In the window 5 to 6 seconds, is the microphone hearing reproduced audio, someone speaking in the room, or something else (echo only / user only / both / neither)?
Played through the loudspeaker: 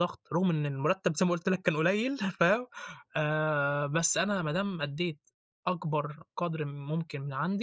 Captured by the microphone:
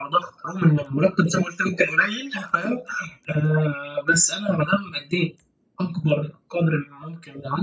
echo only